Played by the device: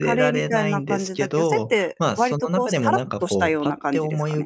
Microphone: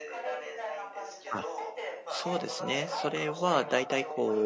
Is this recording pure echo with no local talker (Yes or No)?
No